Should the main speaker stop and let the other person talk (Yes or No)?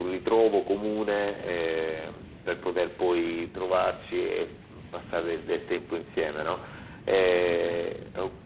No